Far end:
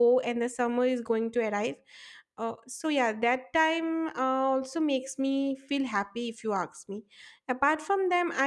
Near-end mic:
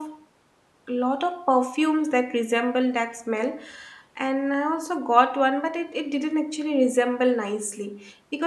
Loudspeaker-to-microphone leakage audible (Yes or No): No